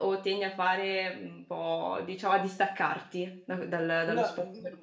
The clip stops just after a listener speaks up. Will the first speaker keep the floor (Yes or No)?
No